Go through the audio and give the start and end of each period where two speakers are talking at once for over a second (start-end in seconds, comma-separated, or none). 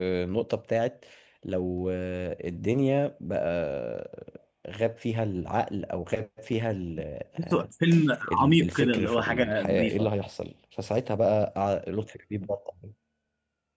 8.3-10.1